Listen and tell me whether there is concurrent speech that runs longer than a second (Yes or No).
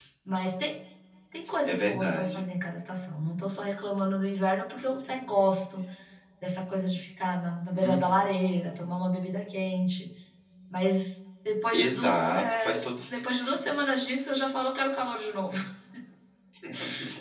Yes